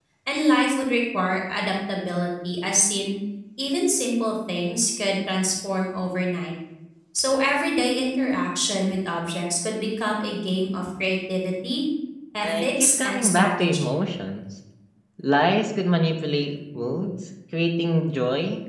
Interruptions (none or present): present